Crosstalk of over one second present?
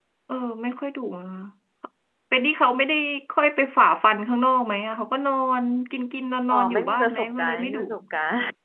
Yes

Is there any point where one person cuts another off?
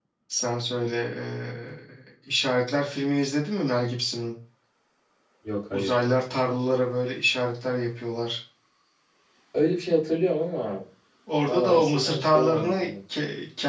Yes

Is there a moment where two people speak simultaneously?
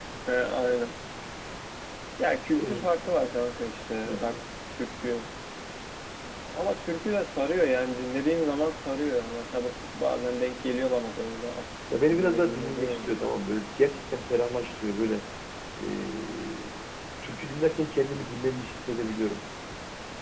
Yes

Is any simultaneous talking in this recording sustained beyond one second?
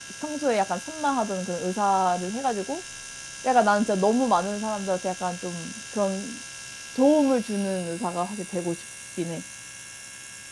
No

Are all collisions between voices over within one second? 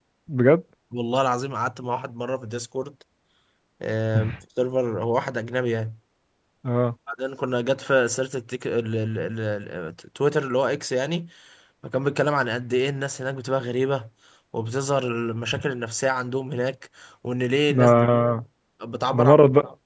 Yes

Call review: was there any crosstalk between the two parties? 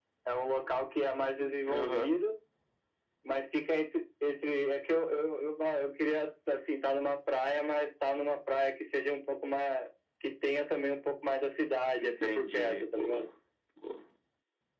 Yes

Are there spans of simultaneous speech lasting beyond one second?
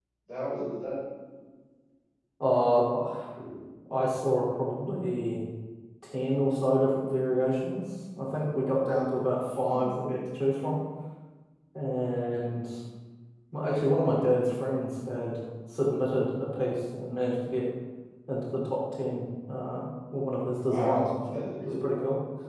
Yes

